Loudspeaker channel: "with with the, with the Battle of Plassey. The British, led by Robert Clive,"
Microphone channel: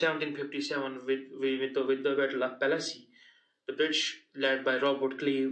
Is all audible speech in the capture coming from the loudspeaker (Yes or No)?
Yes